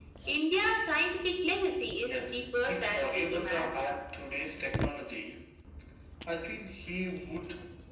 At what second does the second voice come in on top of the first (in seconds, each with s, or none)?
2.0 s